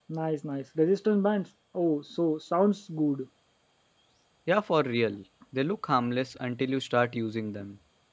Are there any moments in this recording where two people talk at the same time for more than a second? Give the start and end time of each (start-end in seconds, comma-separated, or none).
none